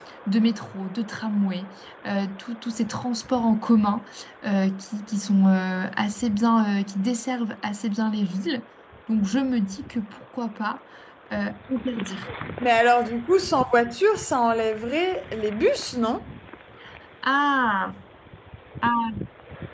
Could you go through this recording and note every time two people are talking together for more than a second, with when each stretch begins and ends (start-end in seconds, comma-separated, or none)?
none